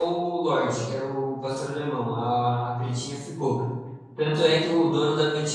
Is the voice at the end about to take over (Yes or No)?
No